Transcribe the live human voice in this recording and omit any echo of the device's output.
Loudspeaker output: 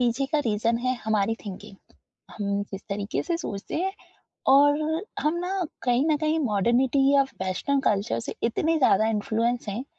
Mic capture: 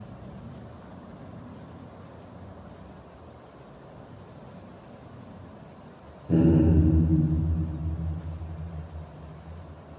हुँ, हुँ,

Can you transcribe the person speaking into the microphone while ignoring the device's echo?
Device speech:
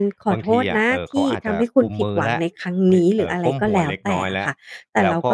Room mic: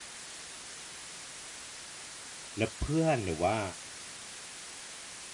แล้วเพื่อนหรือว่า

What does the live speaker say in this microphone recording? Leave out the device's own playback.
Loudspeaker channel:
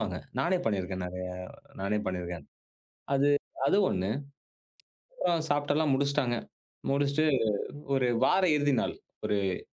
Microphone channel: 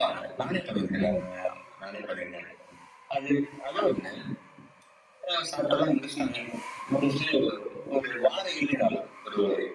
ம்.

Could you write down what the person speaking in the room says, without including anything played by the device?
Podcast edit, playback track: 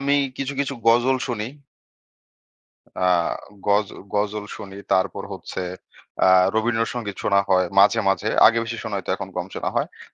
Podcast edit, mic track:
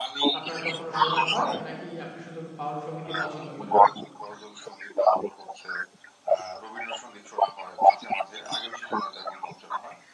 আপনার কখনো শোনা হয়? নাকি আপনি শুধু বাউল সংগীতই পছন্দ করেন?

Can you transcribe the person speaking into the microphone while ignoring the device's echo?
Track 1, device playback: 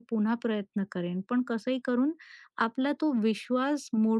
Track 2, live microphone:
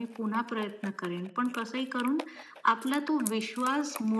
none

